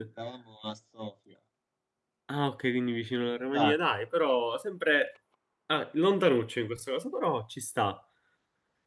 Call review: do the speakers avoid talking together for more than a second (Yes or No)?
Yes